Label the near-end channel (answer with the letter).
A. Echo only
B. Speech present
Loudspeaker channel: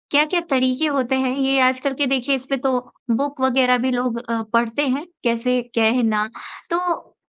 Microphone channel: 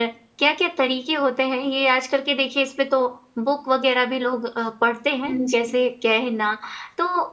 B